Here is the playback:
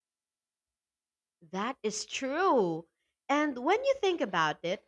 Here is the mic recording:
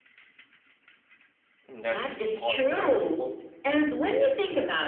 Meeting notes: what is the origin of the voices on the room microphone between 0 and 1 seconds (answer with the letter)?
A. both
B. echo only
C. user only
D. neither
D